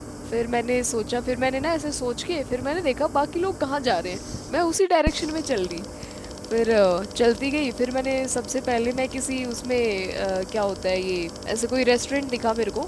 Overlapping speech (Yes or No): No